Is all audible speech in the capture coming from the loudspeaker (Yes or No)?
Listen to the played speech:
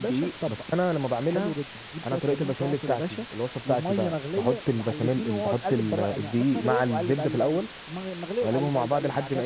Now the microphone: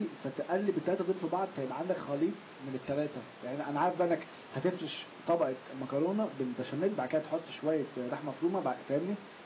No